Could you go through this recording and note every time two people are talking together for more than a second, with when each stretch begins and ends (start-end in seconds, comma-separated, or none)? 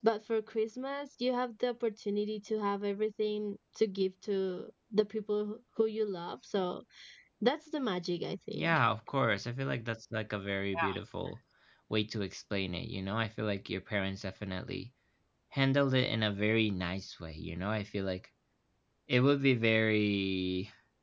none